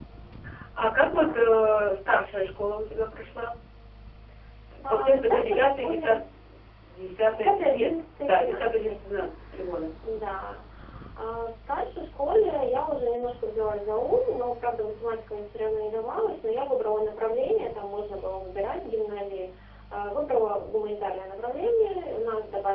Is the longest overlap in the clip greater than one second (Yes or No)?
Yes